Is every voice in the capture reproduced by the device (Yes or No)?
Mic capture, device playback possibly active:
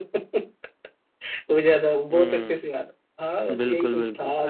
No